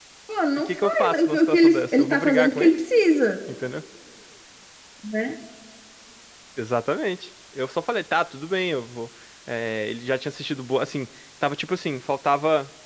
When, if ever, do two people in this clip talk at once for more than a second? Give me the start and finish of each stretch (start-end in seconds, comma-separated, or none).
0.6-2.8